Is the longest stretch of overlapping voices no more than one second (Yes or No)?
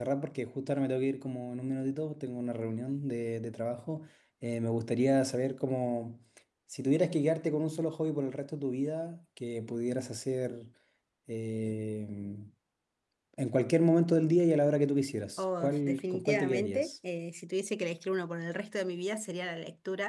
No